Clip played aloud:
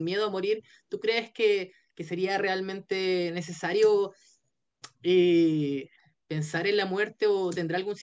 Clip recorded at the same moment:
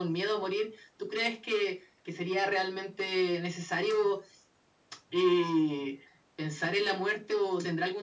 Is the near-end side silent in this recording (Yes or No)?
Yes